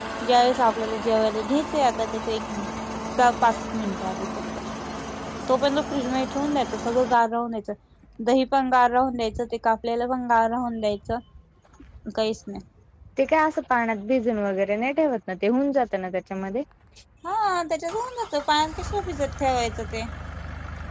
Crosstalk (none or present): none